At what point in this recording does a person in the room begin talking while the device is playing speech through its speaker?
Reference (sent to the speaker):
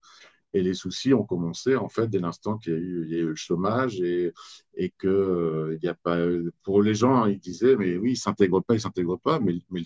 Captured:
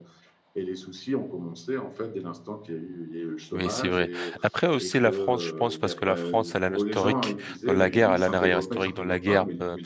3.5 s

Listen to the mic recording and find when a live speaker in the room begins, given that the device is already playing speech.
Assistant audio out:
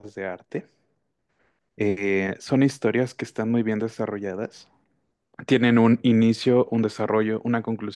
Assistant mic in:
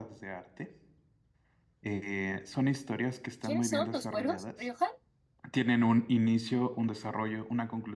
3.4 s

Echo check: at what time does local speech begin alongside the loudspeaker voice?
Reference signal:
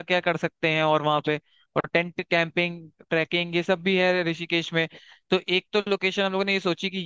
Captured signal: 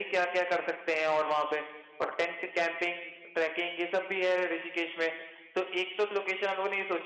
none

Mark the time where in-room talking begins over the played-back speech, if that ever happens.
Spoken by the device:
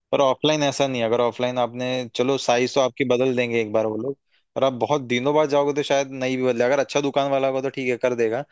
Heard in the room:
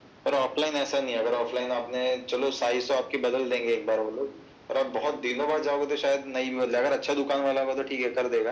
none

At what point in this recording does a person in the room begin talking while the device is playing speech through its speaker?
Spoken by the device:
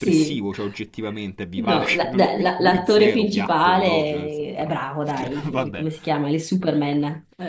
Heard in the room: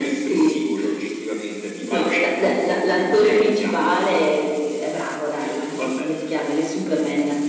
none

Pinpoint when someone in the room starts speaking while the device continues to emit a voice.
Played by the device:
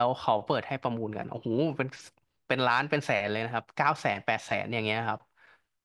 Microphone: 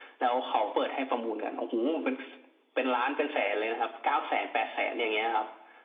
none

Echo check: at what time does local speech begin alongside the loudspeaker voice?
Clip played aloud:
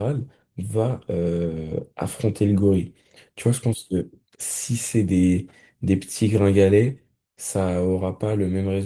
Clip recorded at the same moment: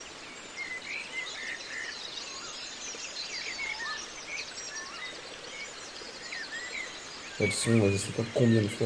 7.4 s

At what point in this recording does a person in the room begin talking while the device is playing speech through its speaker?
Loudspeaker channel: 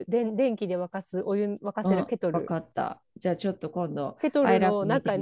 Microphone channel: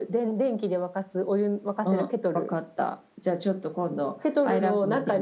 none

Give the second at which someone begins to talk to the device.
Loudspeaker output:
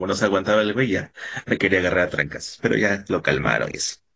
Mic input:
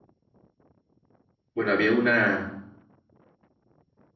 1.5 s

